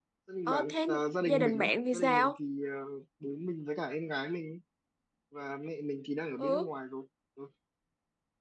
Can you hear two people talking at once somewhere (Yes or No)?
Yes